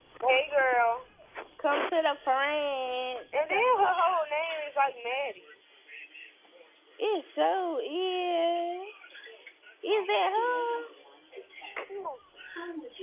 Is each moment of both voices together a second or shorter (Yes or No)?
Yes